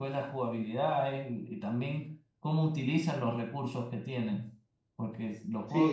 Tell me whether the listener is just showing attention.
No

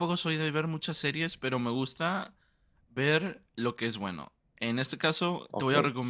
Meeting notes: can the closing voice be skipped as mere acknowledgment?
Yes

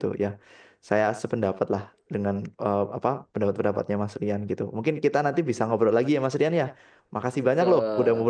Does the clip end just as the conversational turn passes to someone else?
No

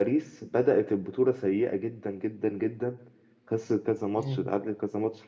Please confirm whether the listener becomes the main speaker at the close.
No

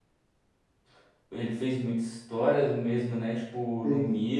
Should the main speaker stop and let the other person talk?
No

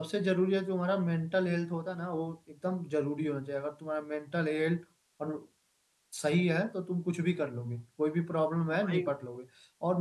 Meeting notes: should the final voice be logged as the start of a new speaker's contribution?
No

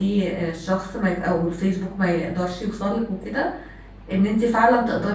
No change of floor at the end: Yes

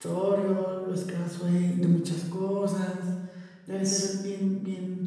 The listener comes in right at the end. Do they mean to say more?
No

